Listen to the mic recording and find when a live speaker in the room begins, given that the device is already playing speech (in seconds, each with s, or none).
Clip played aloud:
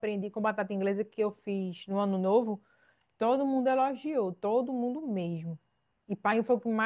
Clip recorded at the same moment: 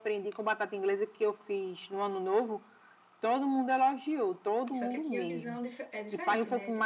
4.7 s